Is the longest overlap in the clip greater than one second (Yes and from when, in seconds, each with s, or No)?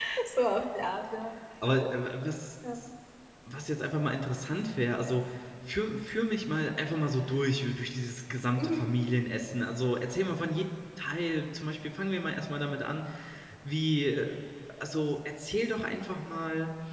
No